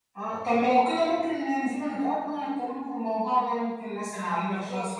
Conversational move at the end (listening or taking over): taking over